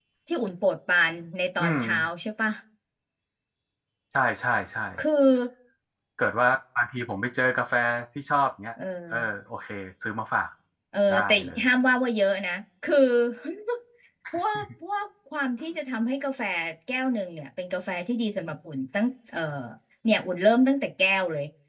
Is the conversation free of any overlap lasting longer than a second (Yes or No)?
Yes